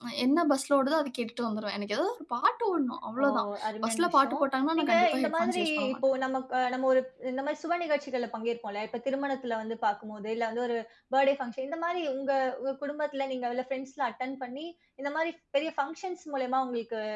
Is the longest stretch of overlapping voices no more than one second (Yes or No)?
No